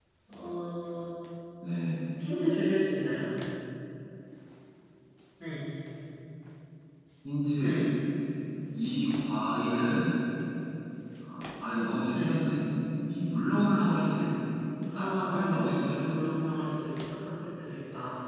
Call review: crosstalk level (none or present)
present